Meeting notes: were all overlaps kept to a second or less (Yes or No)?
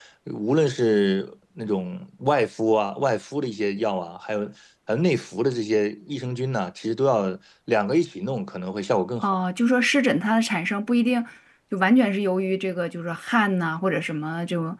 Yes